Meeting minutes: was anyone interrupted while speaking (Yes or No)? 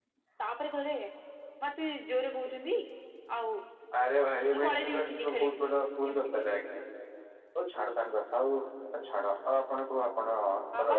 Yes